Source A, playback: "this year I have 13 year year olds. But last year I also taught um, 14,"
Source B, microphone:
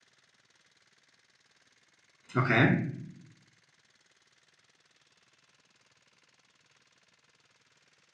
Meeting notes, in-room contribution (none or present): present